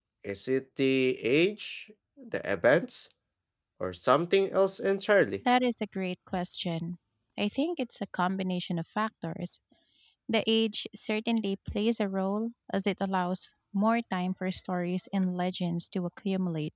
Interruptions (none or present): none